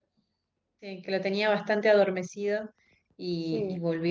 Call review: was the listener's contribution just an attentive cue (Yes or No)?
Yes